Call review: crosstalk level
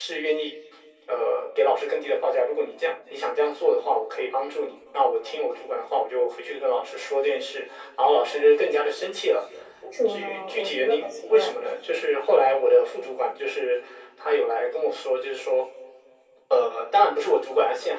present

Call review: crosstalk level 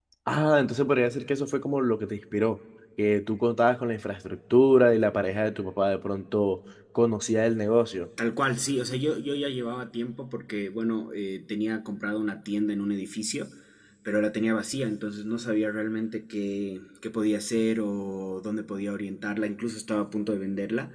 none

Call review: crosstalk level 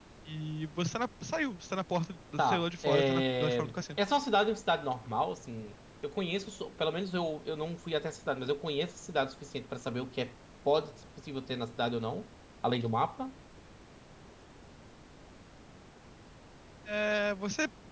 present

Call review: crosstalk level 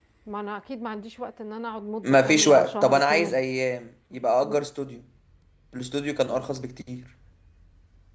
present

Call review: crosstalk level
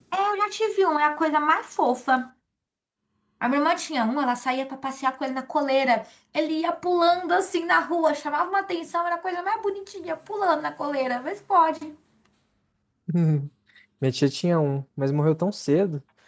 none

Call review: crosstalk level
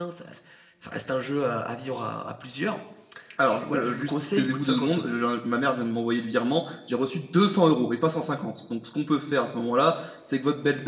present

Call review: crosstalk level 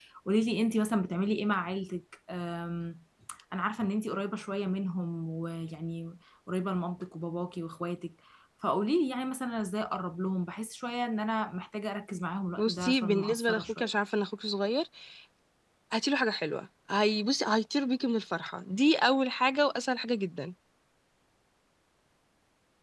present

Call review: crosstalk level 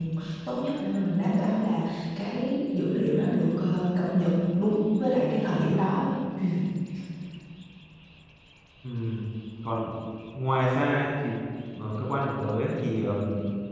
none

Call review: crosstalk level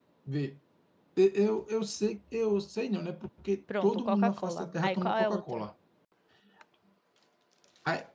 present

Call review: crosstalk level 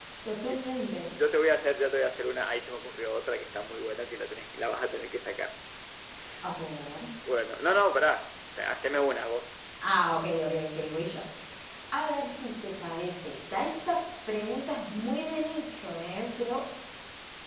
none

